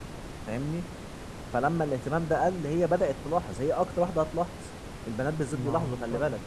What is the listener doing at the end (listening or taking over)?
listening